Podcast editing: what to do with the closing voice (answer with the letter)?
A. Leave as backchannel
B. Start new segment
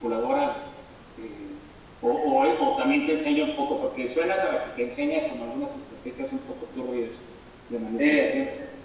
B